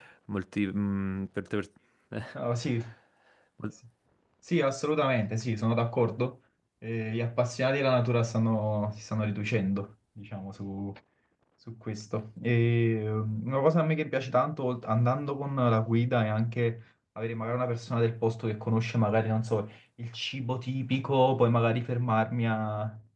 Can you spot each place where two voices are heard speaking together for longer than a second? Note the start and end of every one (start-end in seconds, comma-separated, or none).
none